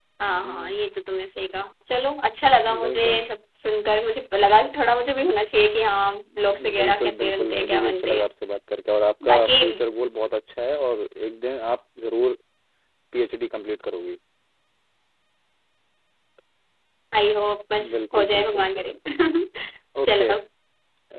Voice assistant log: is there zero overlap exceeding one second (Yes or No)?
No